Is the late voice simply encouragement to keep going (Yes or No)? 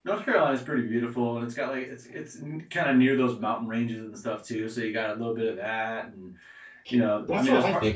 No